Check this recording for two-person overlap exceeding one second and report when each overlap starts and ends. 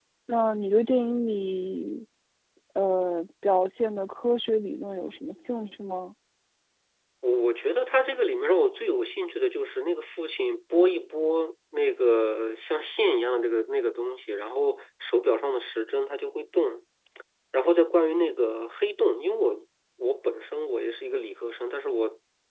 none

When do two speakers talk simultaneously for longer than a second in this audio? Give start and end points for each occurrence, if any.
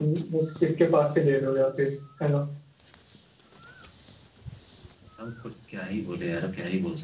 none

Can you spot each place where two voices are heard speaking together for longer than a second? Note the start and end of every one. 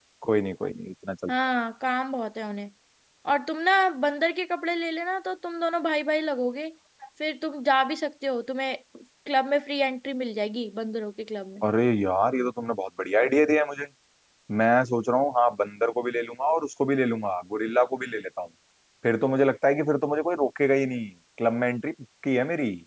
none

